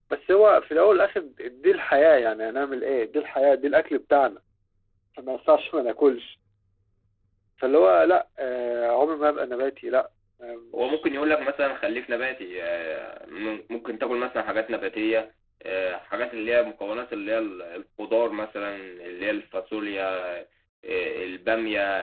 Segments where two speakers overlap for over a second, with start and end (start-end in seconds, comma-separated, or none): none